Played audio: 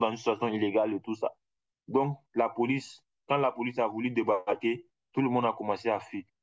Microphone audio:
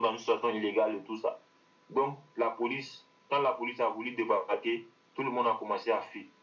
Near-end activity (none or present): none